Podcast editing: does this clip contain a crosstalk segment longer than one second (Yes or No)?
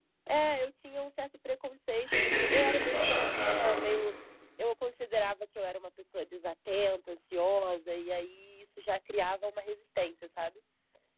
Yes